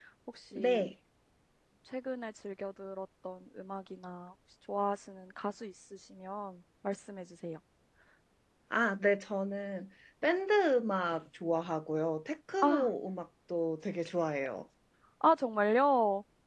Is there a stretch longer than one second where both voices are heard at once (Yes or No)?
No